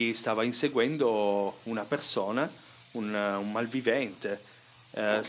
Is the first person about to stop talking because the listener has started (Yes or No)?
No